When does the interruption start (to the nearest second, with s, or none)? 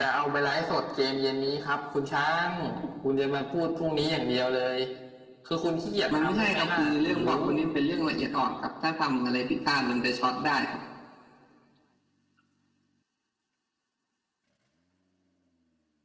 6 s